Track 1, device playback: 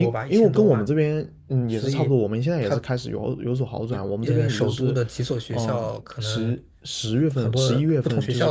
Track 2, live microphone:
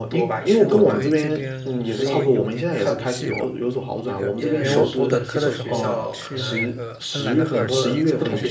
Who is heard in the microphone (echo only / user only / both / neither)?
both